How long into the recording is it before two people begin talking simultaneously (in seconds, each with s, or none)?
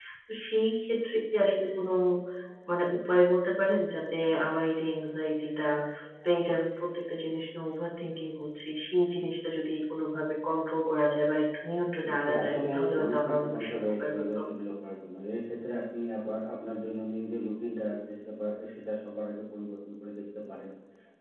12.0 s